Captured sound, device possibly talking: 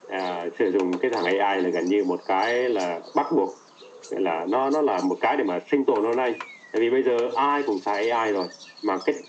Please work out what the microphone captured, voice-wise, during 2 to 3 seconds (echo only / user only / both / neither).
echo only